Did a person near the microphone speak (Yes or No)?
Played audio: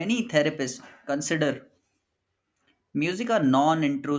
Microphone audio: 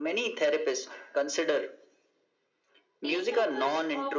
Yes